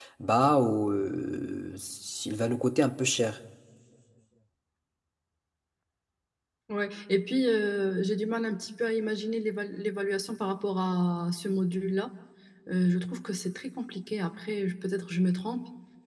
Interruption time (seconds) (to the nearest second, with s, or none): none